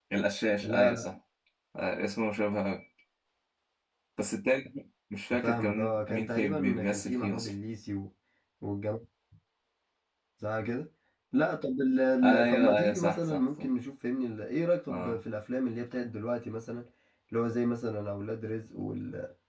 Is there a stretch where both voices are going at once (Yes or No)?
Yes